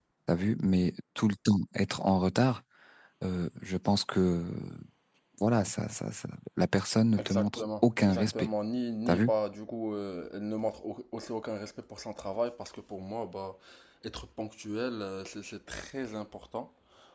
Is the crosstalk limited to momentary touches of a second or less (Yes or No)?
No